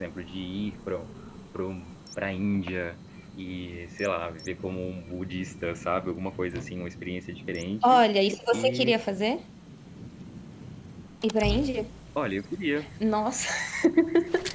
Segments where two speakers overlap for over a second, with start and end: none

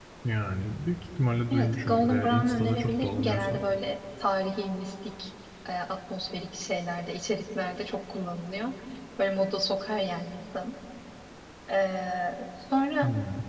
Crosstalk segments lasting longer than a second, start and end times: 1.5-3.6

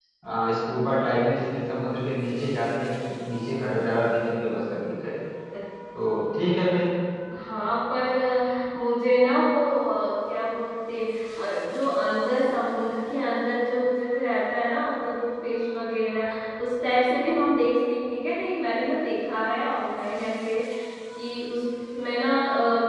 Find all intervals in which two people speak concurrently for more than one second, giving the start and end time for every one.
none

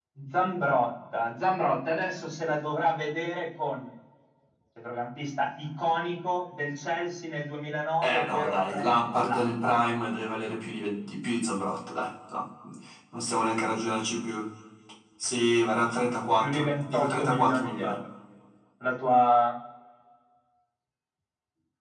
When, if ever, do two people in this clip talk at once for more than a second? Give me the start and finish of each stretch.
8.0-9.8, 16.4-18.0

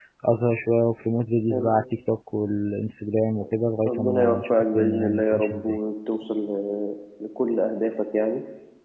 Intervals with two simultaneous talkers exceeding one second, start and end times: 3.8-5.8

